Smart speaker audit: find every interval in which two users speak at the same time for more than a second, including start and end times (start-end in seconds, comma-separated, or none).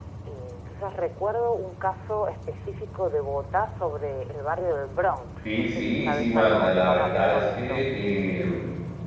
5.4-7.8